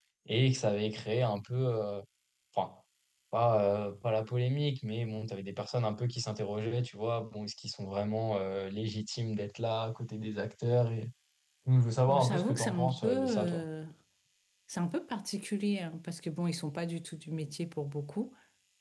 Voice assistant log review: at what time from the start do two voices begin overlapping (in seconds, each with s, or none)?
12.1 s